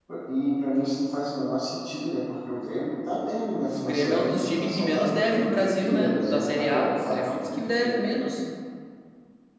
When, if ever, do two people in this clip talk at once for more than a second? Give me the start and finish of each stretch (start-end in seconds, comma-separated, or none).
3.8-7.2